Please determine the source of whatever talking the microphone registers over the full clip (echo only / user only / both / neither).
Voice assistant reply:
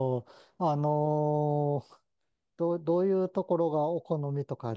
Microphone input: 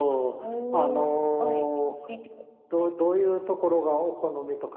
both